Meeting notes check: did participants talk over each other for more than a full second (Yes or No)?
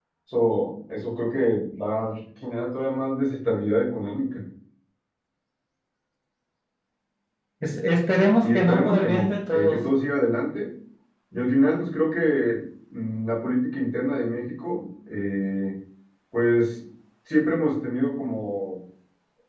Yes